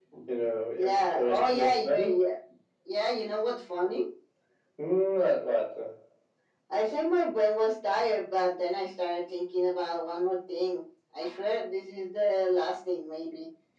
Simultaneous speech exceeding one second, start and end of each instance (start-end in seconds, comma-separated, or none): 0.8-2.1